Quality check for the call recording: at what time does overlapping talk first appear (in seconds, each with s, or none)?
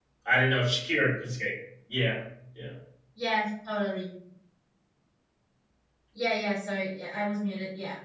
none